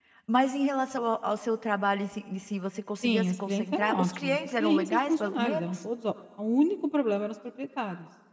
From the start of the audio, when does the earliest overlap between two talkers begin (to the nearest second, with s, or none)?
3 s